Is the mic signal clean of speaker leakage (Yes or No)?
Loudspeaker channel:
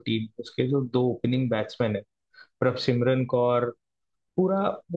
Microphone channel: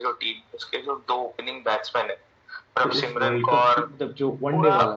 No